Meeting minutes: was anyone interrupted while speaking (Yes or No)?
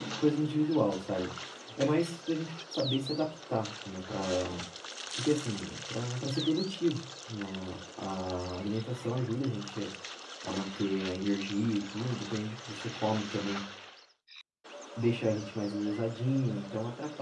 No